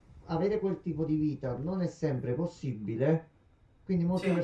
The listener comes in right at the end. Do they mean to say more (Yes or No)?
No